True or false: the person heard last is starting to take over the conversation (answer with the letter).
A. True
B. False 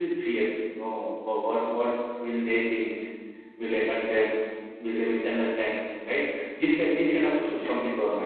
B